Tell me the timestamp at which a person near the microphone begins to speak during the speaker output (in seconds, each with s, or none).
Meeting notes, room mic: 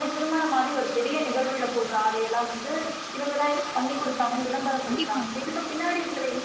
4.8 s